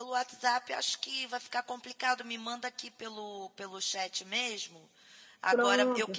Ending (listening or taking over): listening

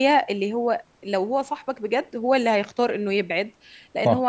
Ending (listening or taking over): listening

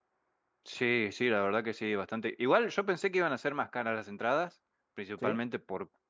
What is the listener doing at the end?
listening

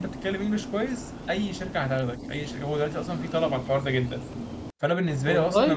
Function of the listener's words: listening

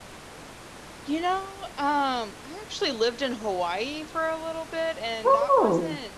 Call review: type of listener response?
listening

